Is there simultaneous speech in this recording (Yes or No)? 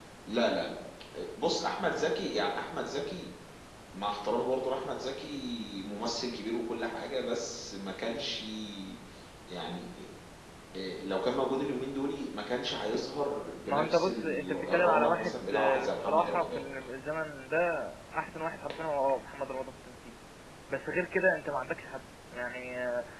Yes